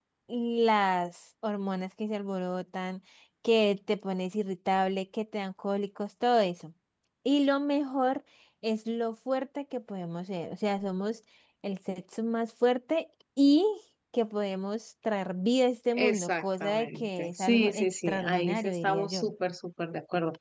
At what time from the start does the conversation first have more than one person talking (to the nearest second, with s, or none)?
16 s